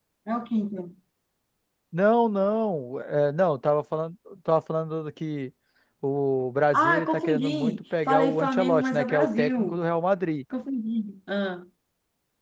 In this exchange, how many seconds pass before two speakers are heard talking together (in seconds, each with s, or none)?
6.7 s